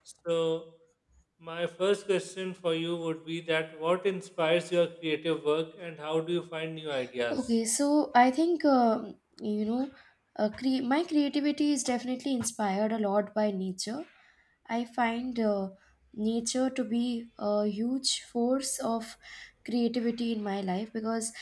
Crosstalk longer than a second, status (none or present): none